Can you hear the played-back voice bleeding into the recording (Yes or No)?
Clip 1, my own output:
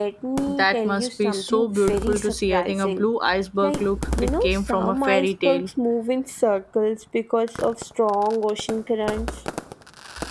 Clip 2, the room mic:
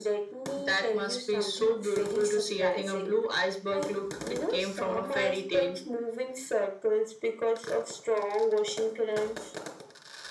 Yes